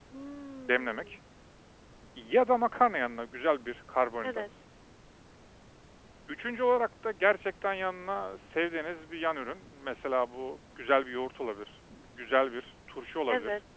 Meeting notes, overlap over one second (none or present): none